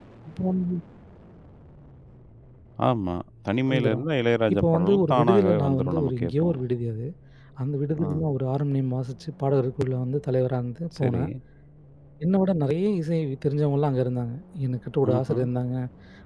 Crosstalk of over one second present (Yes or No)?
Yes